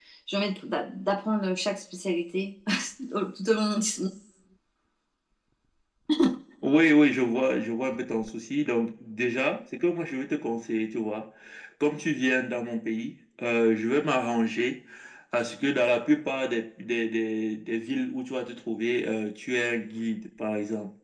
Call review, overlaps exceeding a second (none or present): none